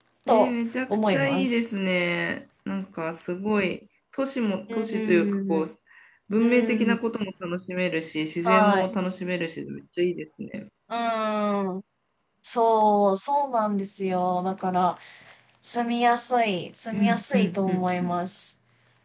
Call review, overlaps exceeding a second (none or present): present